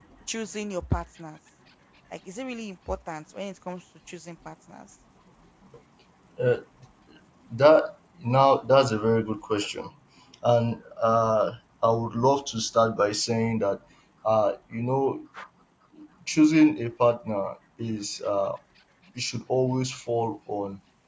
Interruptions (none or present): none